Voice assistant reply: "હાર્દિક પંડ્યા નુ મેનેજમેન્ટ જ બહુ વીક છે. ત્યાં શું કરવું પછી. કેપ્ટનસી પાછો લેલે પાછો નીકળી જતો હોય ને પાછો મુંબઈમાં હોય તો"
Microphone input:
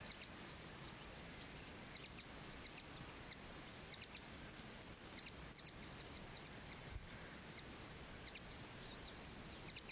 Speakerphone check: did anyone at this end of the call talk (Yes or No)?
No